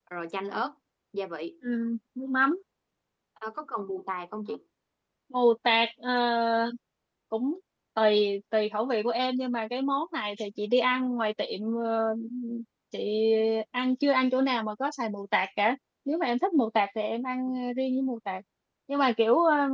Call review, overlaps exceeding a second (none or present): none